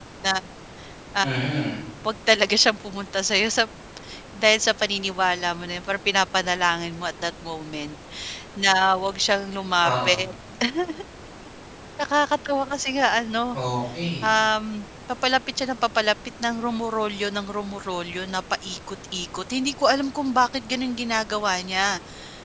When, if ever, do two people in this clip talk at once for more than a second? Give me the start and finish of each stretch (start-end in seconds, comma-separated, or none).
none